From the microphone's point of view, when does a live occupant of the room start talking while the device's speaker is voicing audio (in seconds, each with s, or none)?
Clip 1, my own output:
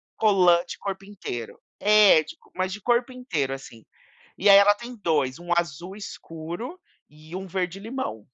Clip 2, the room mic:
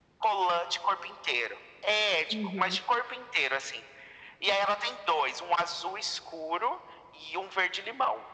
2.3 s